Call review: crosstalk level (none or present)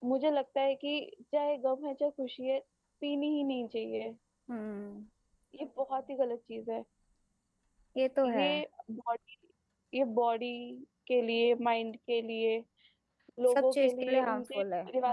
present